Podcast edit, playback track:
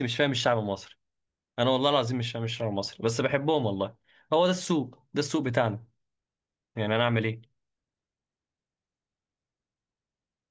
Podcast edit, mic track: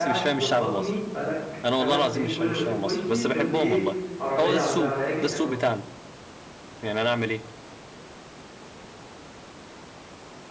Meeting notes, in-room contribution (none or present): present